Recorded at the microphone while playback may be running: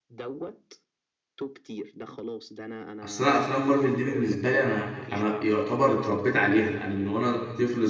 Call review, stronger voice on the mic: user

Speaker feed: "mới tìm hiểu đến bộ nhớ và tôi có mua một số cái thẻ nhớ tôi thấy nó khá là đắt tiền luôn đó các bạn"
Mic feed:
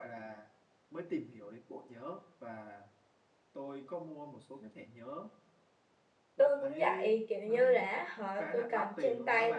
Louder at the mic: user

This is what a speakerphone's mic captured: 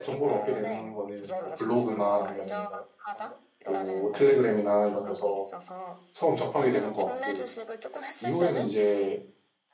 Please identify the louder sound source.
user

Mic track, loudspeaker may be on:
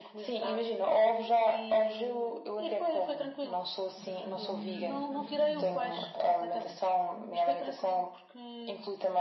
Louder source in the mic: echo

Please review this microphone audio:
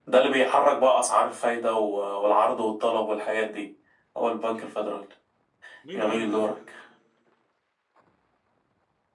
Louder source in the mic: echo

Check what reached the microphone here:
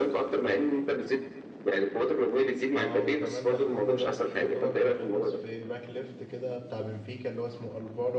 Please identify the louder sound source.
echo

